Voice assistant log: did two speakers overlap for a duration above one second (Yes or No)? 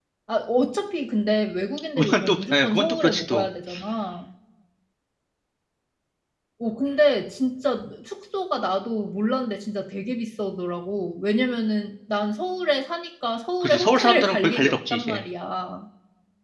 Yes